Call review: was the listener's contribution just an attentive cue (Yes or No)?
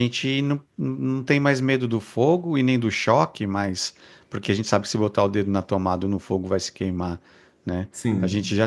Yes